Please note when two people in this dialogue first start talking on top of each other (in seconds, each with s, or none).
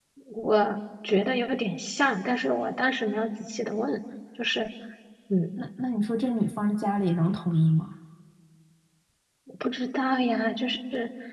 none